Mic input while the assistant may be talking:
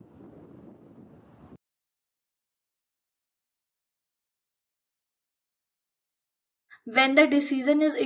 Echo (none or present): none